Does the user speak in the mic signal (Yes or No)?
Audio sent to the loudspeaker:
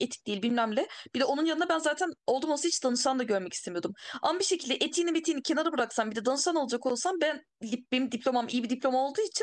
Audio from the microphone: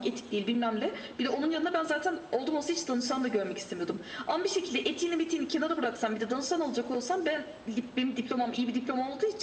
No